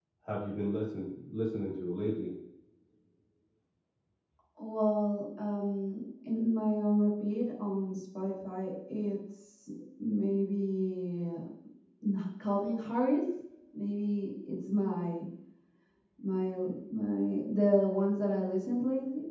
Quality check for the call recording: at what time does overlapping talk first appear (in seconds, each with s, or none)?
none